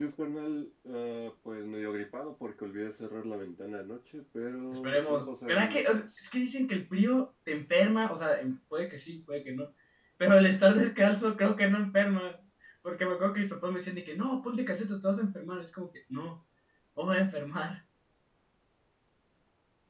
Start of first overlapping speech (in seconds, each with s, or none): 4.8 s